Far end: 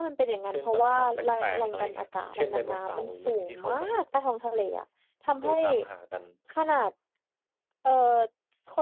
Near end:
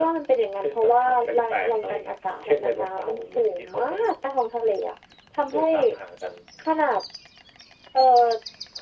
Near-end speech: none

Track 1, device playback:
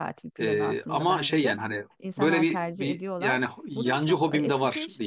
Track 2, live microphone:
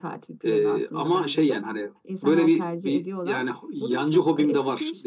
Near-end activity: none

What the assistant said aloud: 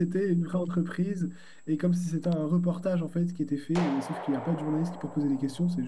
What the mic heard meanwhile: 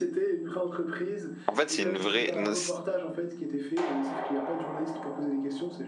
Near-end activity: present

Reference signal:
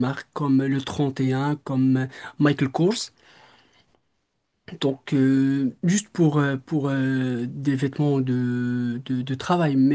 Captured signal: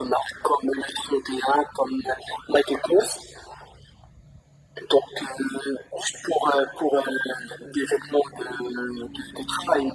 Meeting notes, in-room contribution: none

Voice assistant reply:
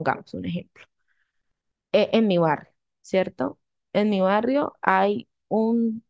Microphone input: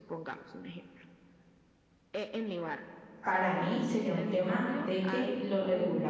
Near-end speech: present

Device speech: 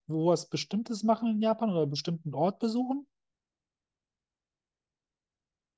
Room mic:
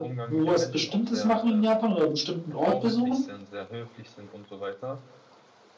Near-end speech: present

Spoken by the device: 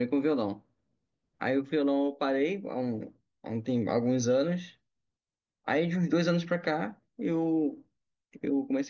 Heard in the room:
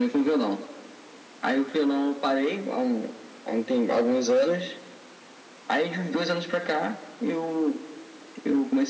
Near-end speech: none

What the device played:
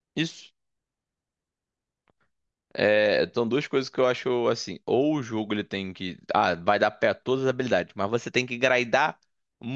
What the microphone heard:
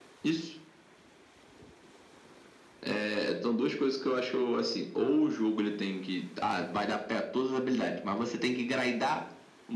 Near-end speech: none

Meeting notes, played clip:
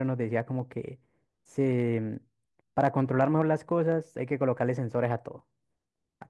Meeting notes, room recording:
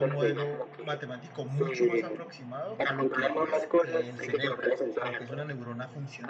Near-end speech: present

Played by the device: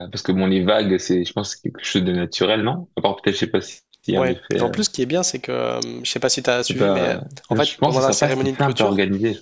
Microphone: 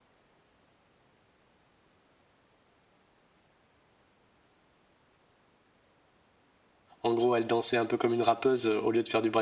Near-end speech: present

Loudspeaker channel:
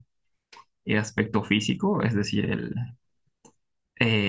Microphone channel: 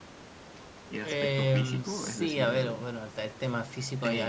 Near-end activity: present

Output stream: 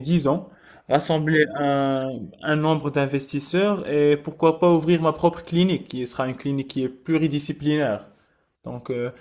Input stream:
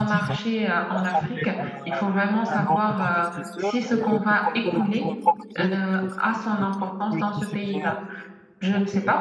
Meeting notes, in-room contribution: present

